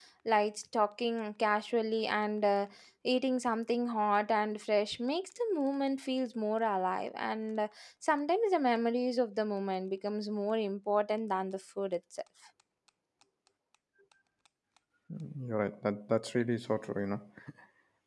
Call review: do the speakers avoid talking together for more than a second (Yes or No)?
Yes